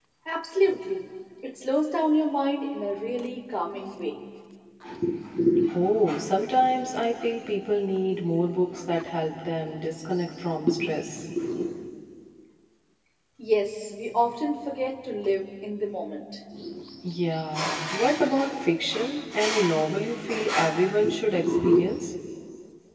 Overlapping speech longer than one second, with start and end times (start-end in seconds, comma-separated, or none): none